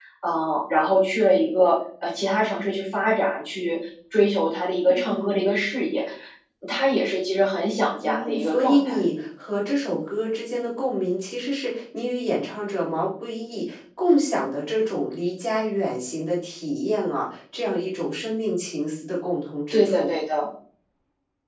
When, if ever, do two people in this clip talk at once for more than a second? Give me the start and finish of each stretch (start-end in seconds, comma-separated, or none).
8.0-9.3